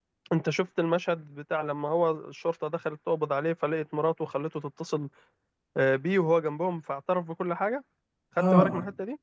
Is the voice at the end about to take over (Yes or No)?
Yes